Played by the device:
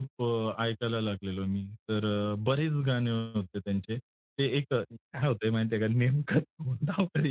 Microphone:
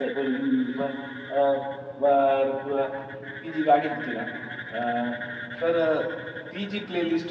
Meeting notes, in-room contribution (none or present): present